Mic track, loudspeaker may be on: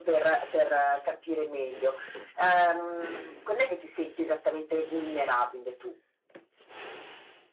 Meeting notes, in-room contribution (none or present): none